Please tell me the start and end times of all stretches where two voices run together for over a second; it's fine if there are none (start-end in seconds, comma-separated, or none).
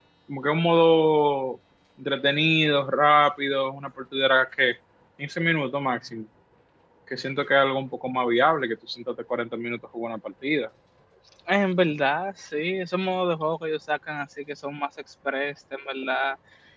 none